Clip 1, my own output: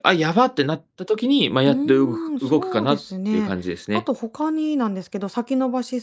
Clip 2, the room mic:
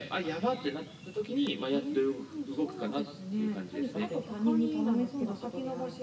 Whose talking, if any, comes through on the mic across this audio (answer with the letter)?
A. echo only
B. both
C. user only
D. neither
B